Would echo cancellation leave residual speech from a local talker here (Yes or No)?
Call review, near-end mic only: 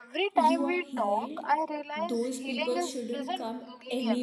Yes